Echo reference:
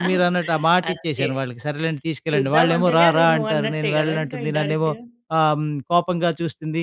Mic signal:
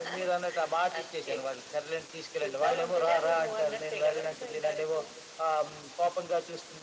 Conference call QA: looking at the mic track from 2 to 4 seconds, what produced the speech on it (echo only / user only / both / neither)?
echo only